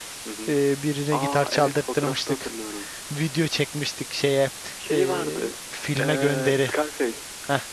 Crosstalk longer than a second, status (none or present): present